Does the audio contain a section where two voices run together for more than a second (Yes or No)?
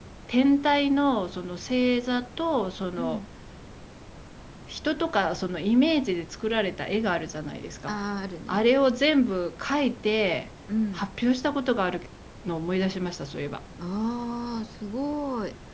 No